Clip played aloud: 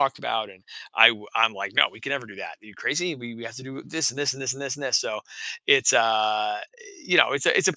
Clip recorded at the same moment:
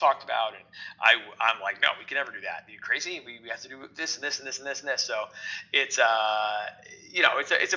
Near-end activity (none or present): none